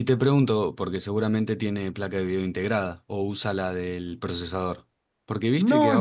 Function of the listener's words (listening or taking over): taking over